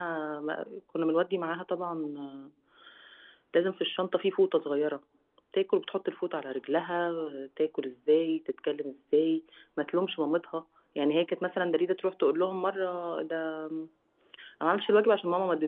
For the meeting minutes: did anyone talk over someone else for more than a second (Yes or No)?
No